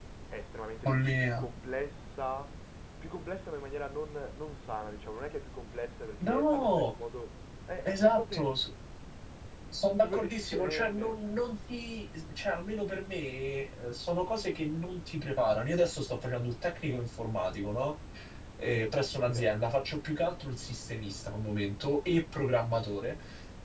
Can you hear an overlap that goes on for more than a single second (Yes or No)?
Yes